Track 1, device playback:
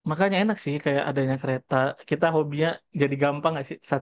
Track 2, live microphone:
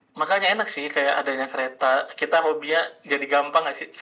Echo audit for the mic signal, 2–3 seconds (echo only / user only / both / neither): echo only